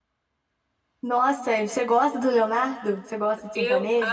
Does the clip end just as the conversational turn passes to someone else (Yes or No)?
Yes